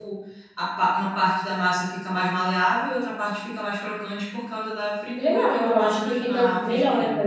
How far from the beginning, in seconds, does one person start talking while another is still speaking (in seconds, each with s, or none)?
5.2 s